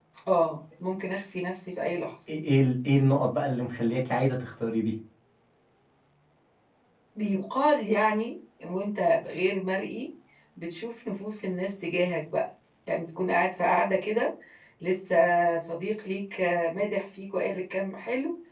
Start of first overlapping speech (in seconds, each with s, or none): none